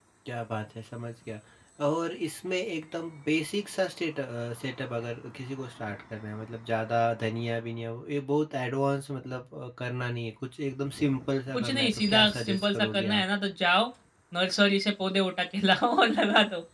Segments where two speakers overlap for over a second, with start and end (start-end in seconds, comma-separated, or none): 11.5-13.2